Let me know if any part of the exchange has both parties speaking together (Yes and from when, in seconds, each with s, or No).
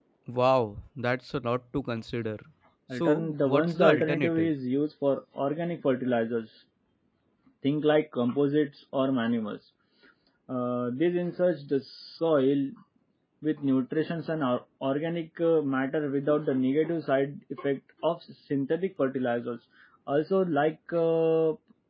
Yes, from 2.9 s